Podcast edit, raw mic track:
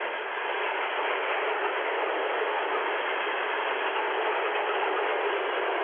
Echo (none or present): none